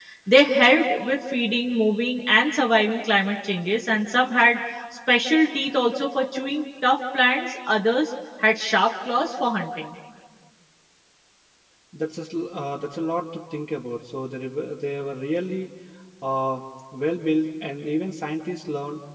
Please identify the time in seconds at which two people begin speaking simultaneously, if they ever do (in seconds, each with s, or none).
none